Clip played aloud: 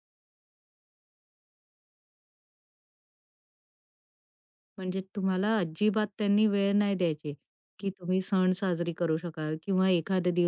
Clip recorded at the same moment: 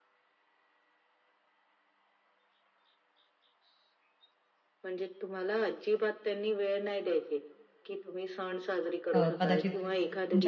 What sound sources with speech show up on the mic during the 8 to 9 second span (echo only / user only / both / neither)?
echo only